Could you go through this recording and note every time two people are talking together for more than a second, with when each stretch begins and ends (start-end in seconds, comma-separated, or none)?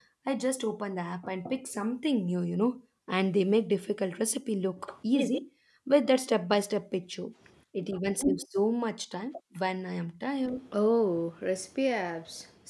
none